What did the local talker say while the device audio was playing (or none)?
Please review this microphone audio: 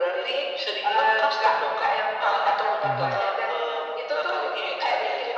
Mhm,